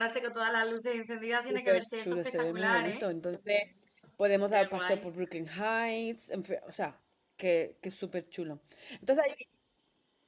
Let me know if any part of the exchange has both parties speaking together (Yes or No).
Yes